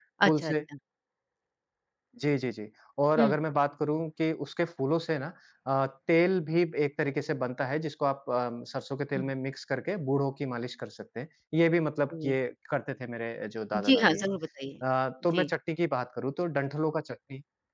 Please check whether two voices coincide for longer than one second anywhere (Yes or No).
No